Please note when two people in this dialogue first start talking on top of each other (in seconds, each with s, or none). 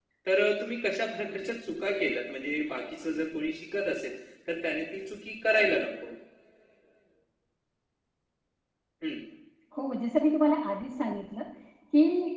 none